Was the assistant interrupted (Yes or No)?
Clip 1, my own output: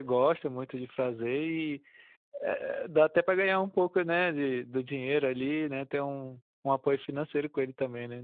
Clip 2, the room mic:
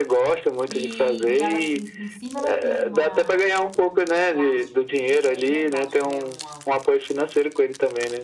Yes